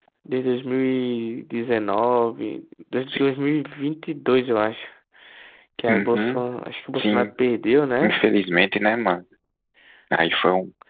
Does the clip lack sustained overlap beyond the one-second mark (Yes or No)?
Yes